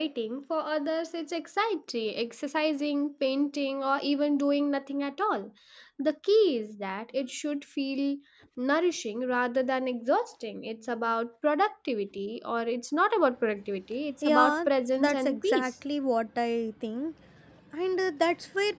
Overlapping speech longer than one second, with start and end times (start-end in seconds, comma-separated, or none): 14.2-15.7